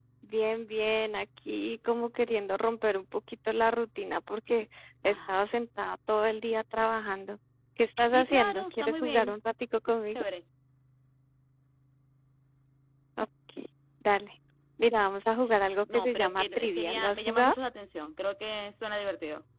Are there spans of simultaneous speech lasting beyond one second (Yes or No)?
Yes